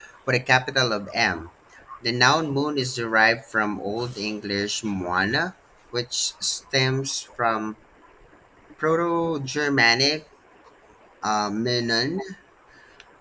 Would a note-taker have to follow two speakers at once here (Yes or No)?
No